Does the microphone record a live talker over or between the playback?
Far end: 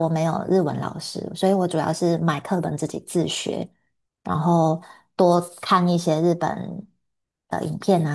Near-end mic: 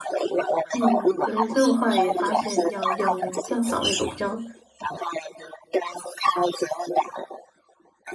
Yes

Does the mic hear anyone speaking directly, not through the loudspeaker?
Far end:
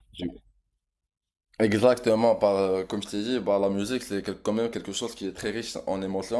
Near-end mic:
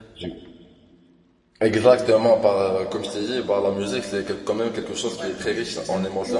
Yes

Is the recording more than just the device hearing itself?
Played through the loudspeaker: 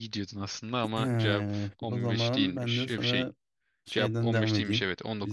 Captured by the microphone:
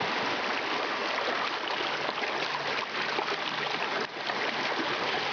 No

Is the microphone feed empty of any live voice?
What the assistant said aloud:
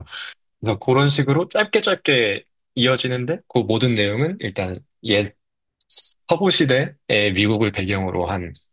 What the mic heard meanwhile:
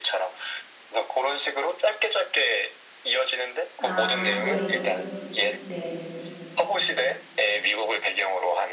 No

